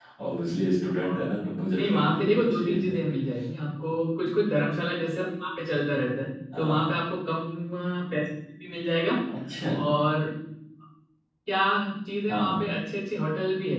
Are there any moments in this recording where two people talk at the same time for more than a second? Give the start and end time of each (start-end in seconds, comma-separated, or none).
1.8-3.0